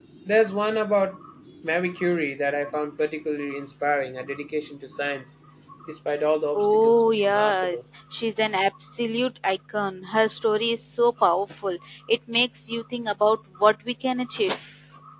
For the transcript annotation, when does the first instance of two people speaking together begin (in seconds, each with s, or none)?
6.6 s